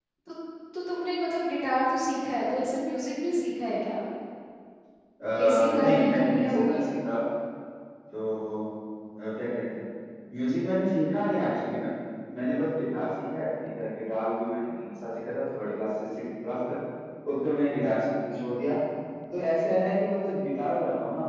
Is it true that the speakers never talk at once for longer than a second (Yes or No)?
No